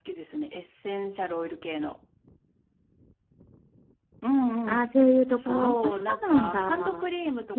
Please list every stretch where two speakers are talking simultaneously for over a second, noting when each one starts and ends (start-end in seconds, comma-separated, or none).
5.4-7.1